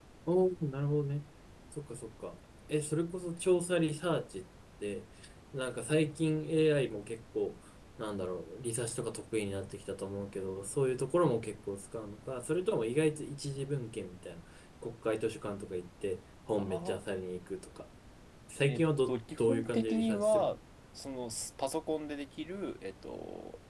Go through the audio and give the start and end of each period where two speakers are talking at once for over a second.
18.6-20.5

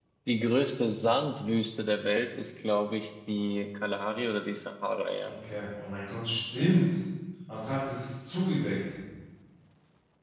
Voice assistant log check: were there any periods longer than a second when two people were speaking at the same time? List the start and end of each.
none

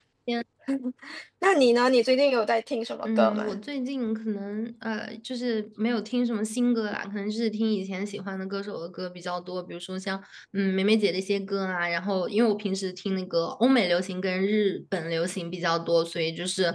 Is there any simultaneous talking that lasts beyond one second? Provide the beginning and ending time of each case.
none

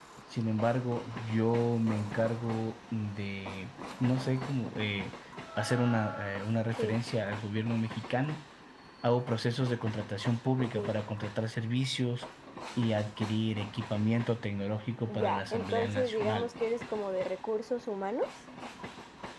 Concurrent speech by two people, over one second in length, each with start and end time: 15.1-16.5

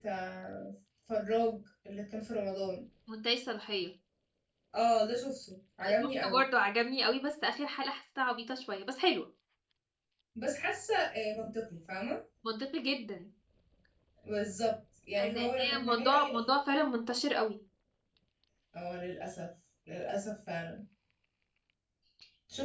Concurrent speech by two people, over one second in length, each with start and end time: 15.2-16.6

